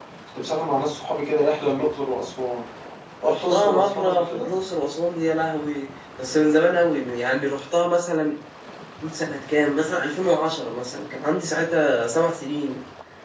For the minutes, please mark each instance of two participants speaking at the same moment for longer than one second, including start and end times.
3.3-4.5

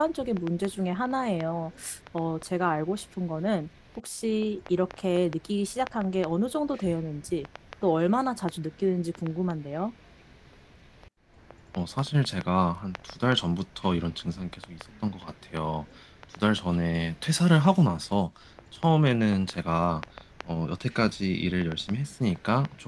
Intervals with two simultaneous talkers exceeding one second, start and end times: none

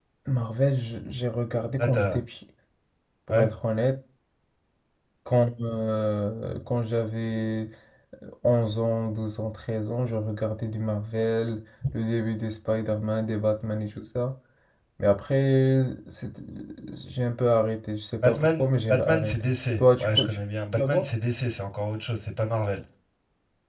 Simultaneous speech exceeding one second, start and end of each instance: 18.2-20.4

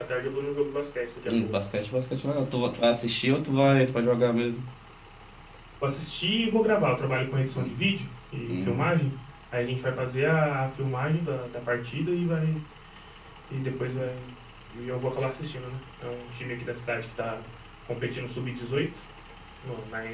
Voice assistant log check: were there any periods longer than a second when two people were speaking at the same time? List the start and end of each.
none

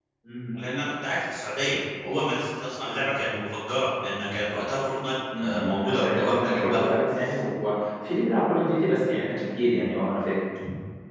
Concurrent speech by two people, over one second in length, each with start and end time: 5.4-6.9

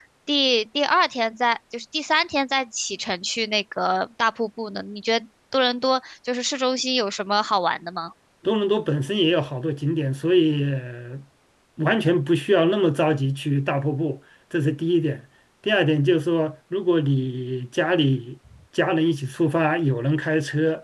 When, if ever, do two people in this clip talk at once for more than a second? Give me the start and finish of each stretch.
none

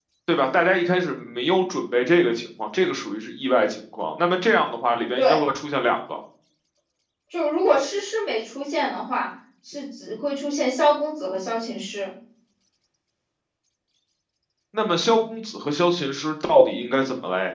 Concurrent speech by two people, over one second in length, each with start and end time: none

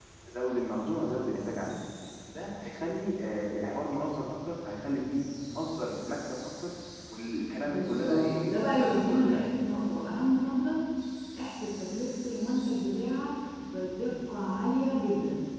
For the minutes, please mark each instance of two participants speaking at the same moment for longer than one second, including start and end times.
7.6-9.4

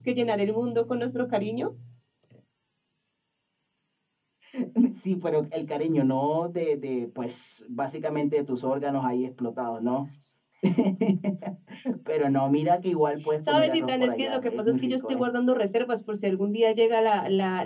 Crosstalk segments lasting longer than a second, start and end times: 13.5-15.2

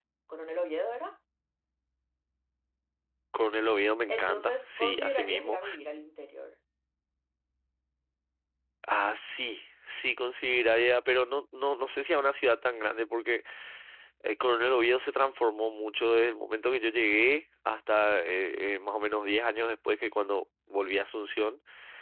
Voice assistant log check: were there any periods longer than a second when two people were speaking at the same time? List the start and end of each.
4.1-5.6

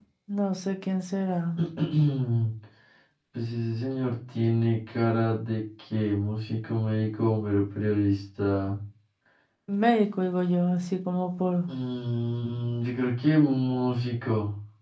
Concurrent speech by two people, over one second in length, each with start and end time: none

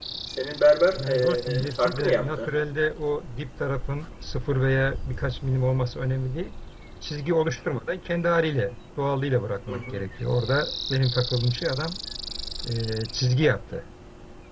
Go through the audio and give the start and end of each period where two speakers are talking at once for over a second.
1.0-2.5

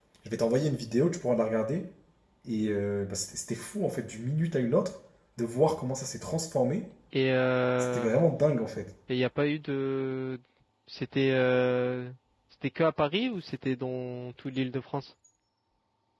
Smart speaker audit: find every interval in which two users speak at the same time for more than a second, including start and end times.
none

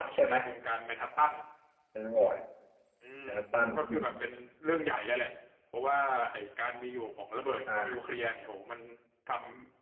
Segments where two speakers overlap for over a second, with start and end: none

